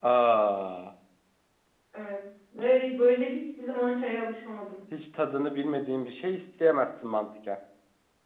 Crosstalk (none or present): none